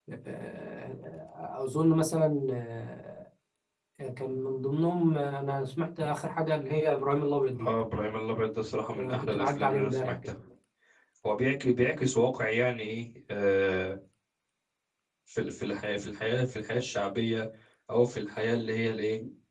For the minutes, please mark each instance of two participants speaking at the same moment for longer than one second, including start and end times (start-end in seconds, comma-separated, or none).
8.9-10.2